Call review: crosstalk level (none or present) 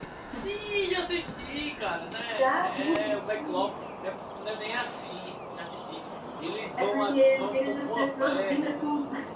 present